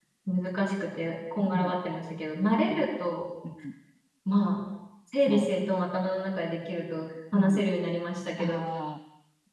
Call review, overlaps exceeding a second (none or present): none